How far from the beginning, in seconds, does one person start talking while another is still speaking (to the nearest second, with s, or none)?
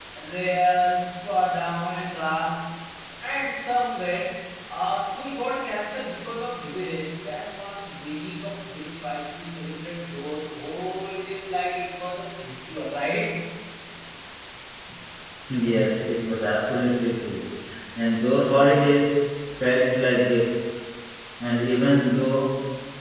none